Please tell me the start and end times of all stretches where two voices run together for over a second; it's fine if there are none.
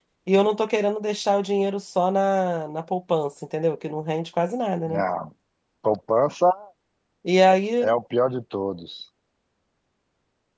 none

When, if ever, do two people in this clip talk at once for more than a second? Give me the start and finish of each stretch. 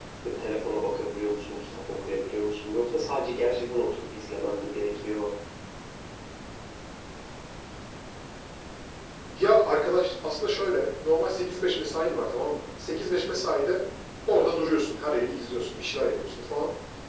none

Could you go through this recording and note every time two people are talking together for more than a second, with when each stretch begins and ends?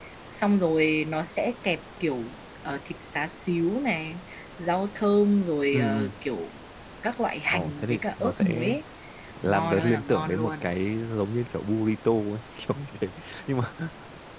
7.5-8.7, 9.4-10.7

